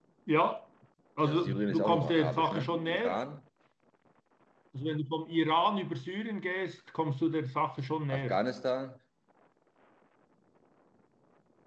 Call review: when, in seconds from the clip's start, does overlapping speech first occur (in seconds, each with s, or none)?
1.2 s